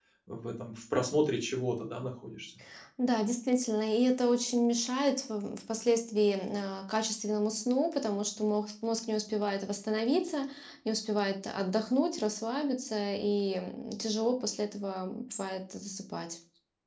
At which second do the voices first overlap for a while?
none

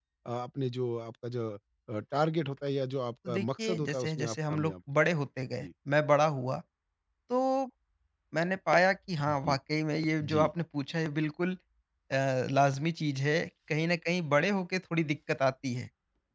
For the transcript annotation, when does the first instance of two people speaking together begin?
3.3 s

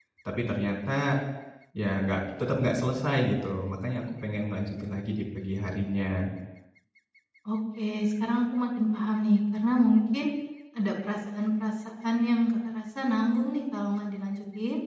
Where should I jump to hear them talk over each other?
none

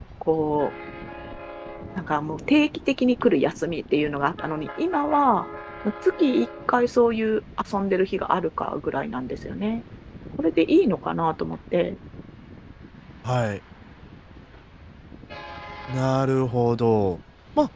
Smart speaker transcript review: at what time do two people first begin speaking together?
none

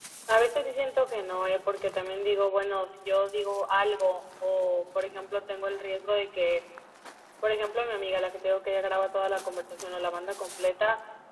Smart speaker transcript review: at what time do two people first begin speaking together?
none

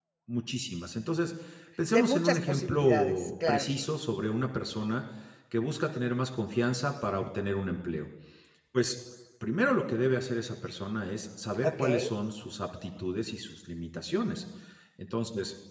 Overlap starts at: 1.9 s

